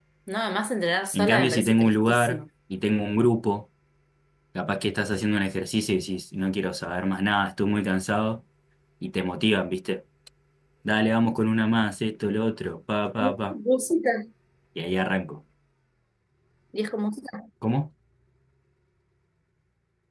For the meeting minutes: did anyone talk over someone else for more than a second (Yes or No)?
Yes